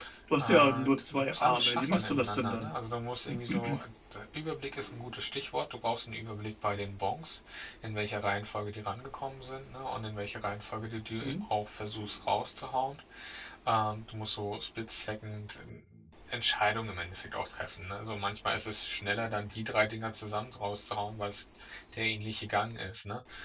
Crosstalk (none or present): present